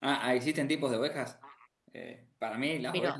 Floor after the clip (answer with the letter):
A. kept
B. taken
B